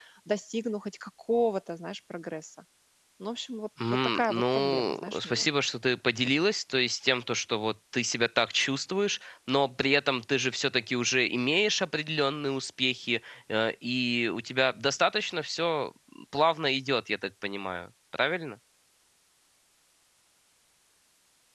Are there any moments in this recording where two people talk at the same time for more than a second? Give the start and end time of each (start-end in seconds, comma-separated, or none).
3.9-5.5